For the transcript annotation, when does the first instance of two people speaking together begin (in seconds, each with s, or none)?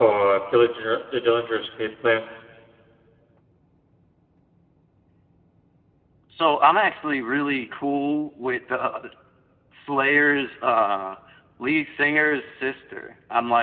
none